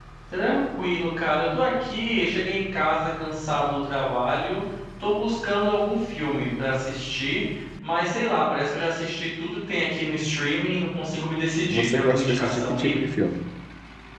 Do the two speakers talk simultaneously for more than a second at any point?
Yes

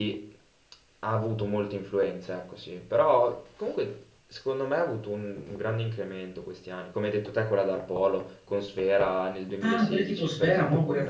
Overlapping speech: Yes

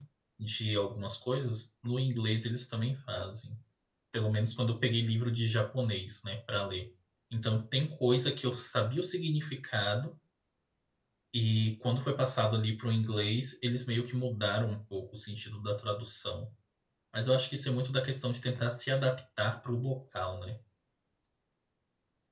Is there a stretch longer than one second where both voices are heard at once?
No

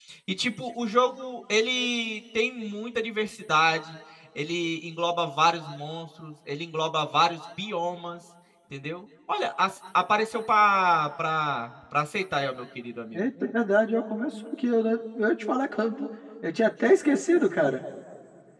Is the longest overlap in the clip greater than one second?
No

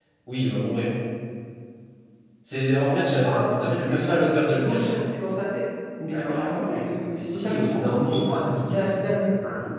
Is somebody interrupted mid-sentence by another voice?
Yes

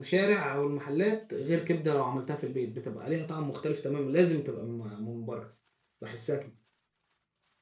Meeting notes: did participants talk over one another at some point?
No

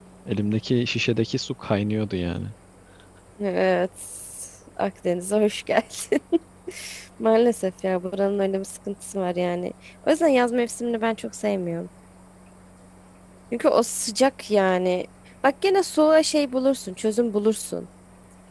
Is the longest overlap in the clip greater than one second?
No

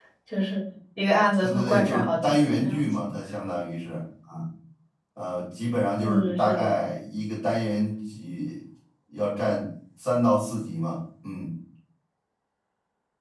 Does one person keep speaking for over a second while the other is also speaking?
Yes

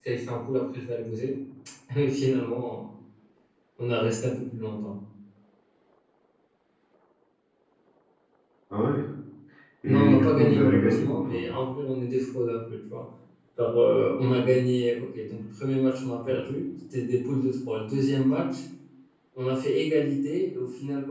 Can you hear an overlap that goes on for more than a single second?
Yes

